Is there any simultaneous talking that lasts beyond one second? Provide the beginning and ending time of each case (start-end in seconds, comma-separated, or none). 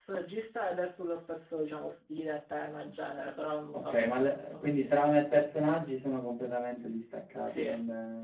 3.7-5.0